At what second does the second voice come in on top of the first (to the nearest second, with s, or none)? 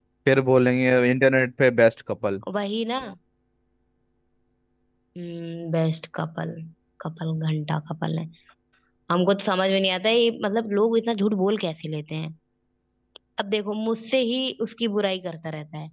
none